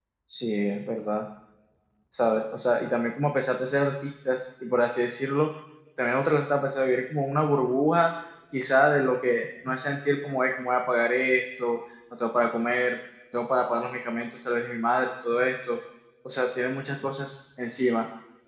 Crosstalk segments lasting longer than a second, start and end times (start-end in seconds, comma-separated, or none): none